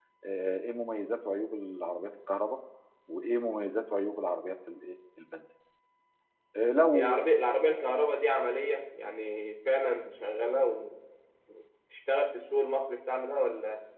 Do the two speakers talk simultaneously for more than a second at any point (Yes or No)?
No